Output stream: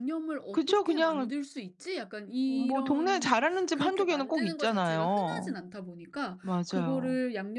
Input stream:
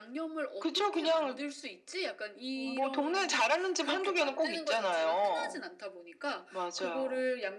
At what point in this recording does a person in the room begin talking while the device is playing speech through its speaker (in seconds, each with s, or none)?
none